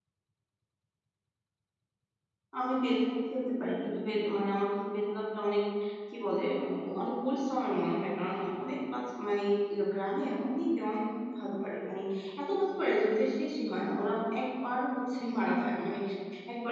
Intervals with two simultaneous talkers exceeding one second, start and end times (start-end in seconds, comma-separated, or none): none